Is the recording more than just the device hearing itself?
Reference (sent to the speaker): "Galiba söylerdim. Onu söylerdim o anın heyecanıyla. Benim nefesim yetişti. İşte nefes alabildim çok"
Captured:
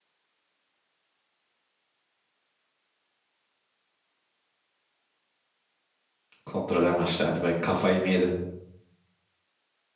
Yes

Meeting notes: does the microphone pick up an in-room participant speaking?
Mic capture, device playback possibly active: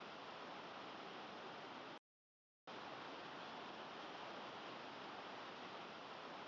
No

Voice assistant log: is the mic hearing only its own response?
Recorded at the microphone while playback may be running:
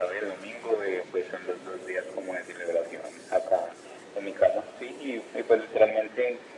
Yes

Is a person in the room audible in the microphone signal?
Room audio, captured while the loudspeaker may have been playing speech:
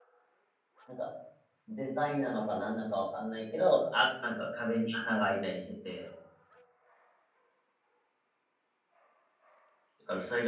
Yes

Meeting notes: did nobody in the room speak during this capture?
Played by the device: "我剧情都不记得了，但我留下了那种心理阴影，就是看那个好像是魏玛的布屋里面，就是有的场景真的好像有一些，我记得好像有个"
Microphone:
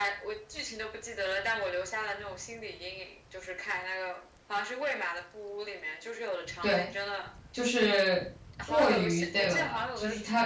No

